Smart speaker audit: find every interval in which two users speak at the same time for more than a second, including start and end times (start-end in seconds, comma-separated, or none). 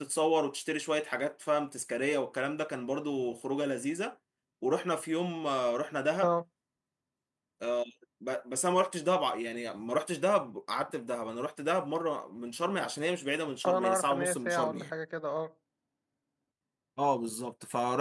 13.7-14.9